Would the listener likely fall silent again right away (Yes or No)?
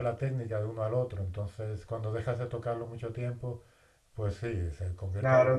No